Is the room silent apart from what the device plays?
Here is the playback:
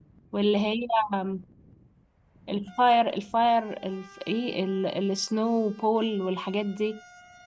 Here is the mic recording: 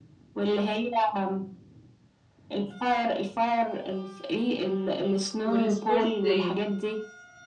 No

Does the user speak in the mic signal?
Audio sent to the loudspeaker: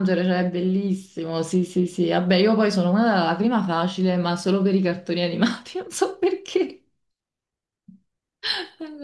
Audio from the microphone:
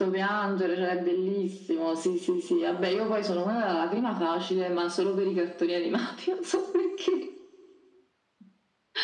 No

